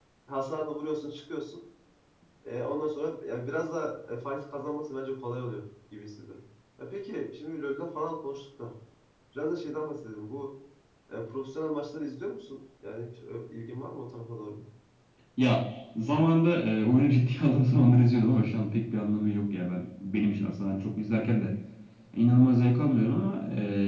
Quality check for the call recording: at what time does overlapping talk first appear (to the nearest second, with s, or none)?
none